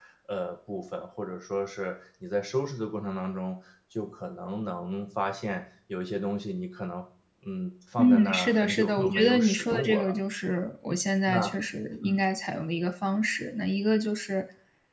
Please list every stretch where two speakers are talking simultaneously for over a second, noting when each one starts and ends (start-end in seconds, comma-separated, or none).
8.0-10.1